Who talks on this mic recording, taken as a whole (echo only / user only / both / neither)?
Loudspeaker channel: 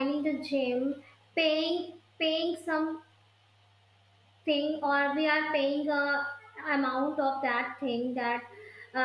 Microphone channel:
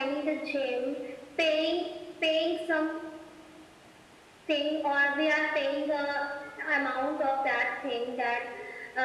echo only